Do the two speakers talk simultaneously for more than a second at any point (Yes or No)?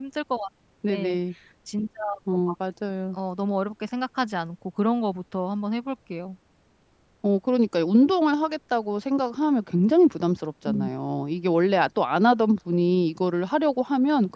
No